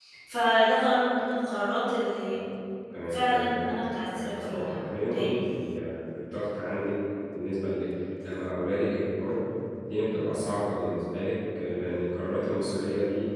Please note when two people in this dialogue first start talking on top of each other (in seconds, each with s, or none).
3.1 s